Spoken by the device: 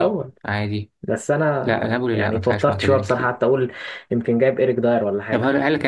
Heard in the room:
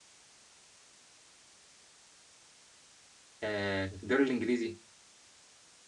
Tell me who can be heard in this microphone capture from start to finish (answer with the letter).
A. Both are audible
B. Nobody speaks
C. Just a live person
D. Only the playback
C